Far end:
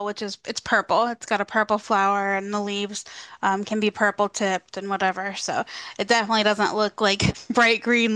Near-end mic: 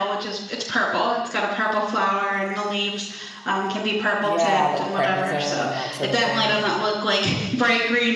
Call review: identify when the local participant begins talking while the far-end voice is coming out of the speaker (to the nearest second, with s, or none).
4 s